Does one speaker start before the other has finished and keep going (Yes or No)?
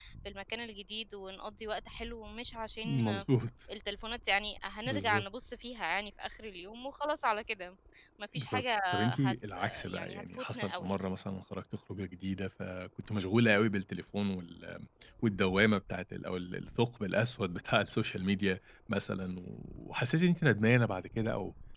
Yes